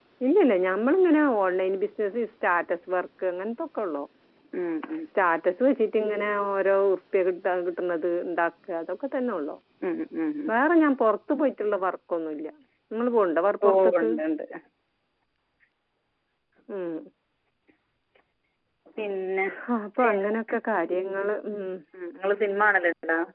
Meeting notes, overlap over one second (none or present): none